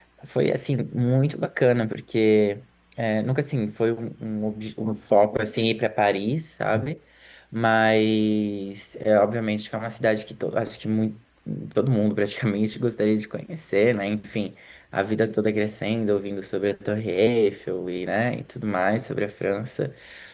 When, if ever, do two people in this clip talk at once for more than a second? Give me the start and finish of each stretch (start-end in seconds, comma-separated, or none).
none